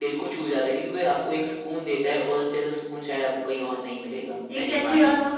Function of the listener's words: taking over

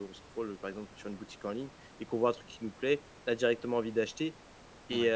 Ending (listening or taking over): listening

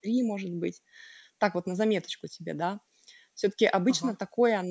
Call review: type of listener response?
listening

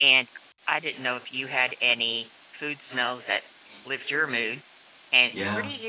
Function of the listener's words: listening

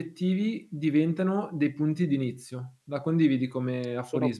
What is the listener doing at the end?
taking over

